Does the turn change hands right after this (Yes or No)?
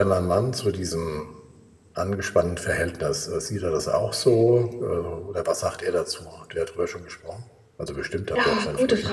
Yes